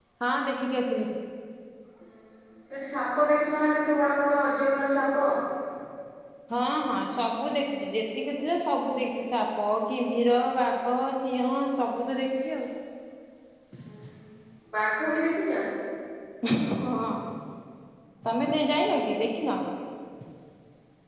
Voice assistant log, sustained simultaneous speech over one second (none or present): none